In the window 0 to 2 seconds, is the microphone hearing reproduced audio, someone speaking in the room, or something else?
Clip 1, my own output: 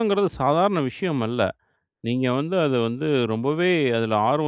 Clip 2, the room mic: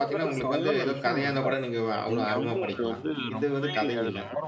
both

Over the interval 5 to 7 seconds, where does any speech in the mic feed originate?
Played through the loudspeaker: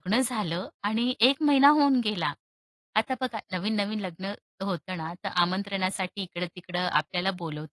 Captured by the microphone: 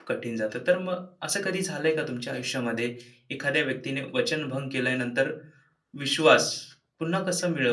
user only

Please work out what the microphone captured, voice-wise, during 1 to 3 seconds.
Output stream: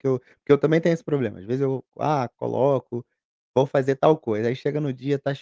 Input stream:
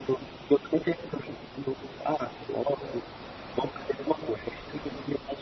echo only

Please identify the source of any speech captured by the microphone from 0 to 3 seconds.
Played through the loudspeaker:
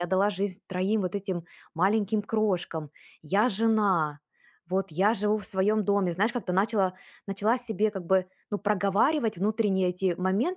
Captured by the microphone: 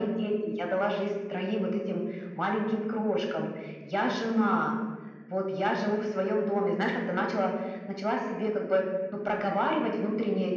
echo only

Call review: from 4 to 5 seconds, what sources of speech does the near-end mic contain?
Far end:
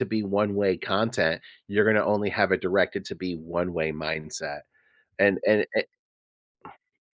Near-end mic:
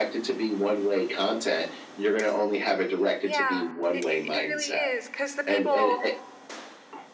both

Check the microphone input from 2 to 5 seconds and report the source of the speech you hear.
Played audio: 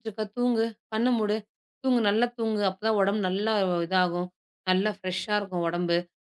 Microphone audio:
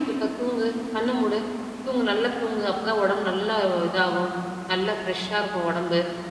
echo only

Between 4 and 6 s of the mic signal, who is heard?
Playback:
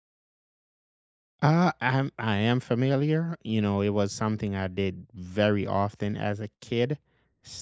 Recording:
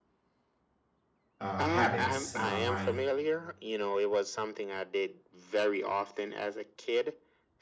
echo only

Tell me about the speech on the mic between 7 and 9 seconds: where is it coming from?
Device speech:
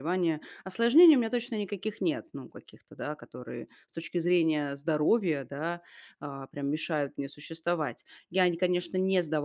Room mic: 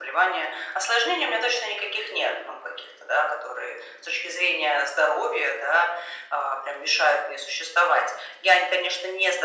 echo only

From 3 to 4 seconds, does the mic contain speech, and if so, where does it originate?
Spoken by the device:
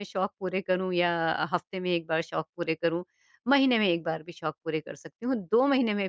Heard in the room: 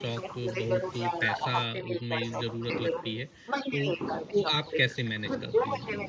both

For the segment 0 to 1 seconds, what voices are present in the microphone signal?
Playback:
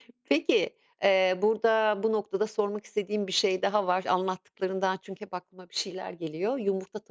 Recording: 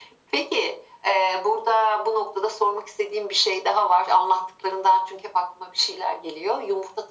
echo only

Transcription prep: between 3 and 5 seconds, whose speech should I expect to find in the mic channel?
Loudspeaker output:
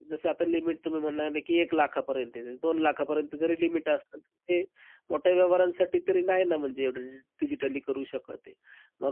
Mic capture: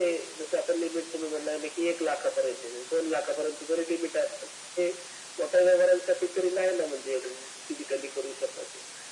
echo only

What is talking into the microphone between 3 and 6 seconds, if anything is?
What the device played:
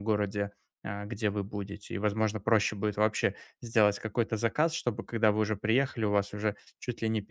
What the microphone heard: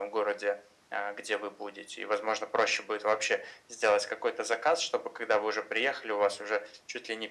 echo only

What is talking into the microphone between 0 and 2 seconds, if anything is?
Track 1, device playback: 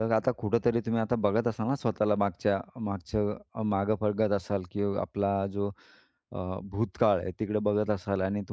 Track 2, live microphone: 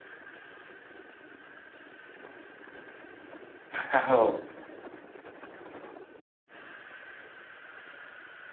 neither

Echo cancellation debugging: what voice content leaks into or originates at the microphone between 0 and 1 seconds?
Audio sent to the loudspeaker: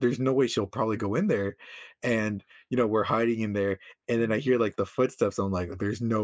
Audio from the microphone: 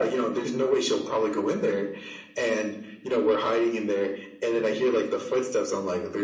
echo only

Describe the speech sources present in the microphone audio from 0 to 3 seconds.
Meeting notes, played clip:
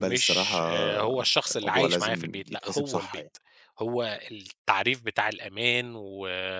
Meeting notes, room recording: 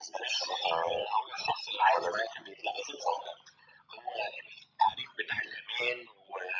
echo only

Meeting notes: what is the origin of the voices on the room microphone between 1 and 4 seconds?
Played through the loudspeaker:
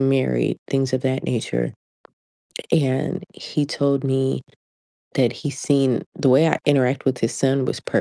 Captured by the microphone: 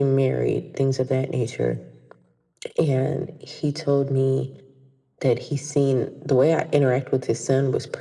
echo only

